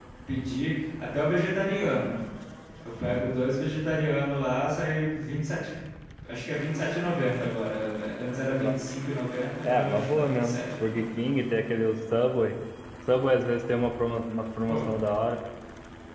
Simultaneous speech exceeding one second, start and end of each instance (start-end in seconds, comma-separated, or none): 9.6-11.0